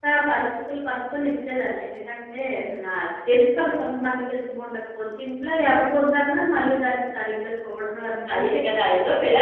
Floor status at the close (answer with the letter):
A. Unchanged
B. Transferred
B